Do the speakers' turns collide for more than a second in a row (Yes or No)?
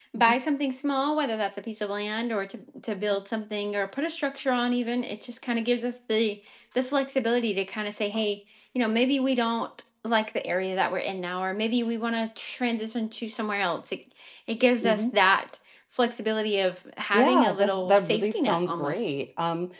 Yes